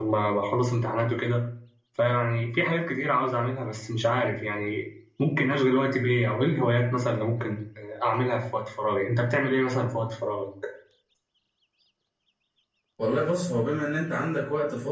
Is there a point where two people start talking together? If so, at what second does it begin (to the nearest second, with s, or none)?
none